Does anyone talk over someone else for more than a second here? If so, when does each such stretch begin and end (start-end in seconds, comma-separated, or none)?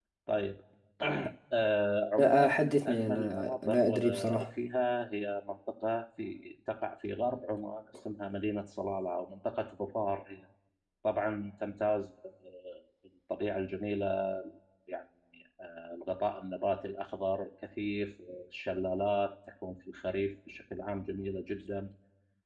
2.2-4.5